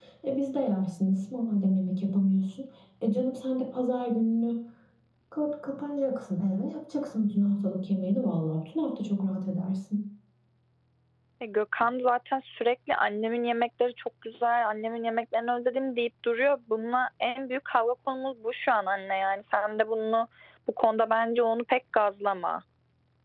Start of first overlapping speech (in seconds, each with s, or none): none